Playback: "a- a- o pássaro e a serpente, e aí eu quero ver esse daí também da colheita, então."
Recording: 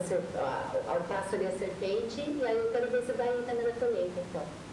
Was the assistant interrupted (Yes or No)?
No